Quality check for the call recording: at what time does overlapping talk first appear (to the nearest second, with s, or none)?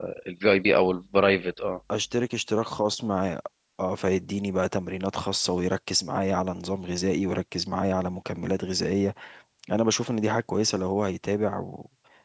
none